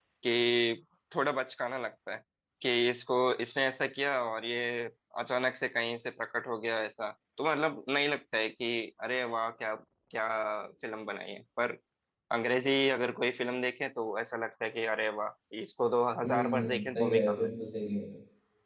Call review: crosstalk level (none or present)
present